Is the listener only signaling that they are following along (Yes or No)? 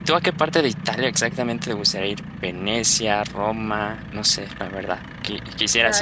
Yes